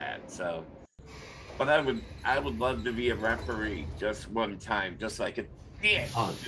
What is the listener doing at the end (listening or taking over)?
taking over